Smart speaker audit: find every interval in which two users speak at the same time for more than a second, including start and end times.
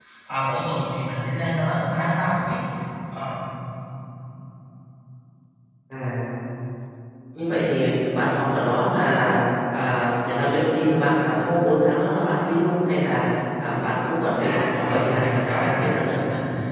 14.4-16.2

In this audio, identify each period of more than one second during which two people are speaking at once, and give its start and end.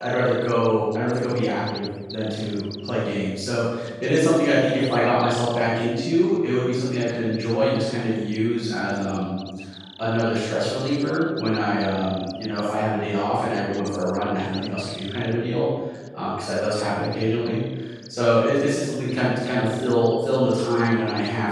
none

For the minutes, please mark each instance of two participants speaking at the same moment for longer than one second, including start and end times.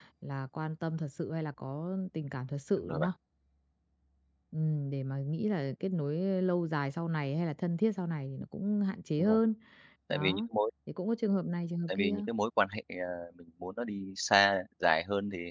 none

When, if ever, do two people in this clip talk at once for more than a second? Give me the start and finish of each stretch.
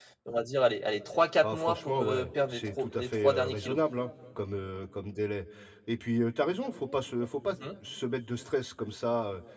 1.4-3.8

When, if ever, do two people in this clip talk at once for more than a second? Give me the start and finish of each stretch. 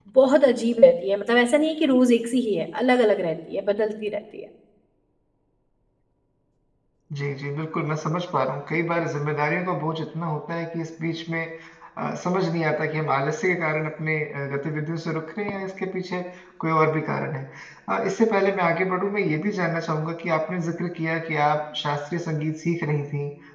none

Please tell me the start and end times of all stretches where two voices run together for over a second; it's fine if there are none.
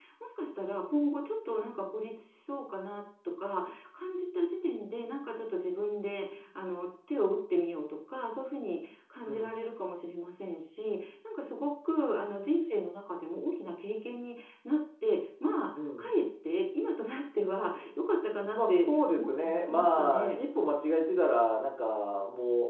18.6-20.4

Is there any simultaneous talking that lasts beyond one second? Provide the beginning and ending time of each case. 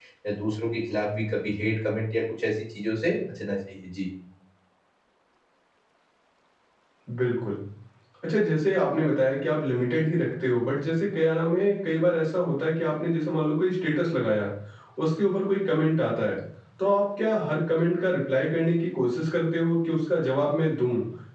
none

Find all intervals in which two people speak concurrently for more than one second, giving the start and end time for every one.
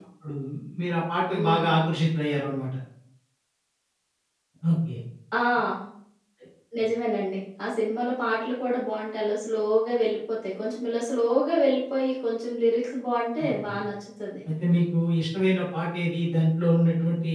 none

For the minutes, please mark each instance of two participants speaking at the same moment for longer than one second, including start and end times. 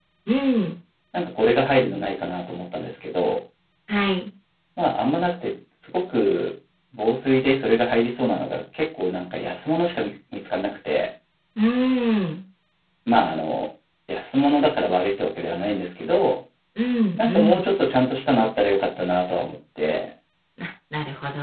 none

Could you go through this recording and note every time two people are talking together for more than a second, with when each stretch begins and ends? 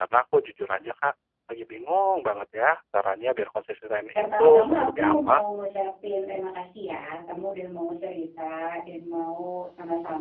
4.2-5.4

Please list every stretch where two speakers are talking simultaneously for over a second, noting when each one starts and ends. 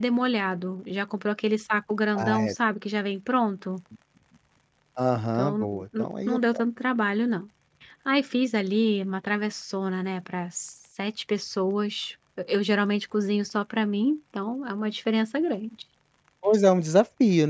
5.4-6.6

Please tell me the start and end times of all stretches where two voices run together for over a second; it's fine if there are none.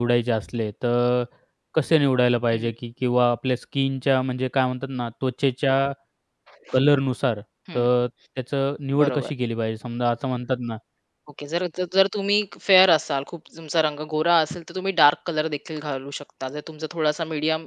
none

